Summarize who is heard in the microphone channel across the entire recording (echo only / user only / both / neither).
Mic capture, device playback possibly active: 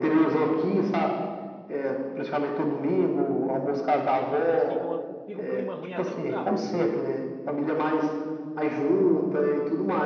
both